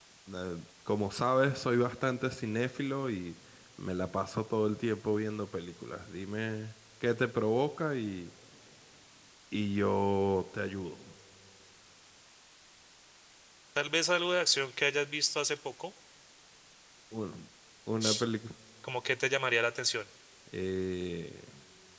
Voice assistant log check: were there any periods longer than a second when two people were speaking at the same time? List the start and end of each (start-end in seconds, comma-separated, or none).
none